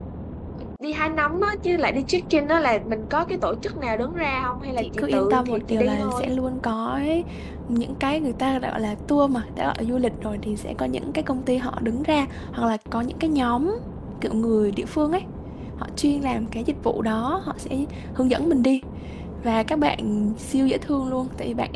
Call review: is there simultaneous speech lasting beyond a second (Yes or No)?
Yes